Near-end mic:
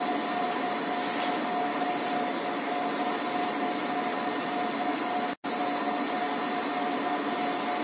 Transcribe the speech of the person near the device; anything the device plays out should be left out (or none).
none